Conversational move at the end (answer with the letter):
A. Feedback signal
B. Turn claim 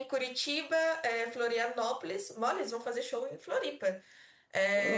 A